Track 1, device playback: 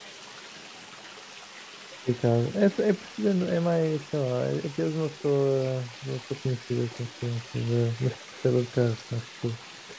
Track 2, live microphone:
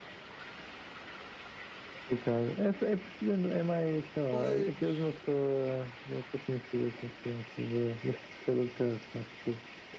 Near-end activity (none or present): present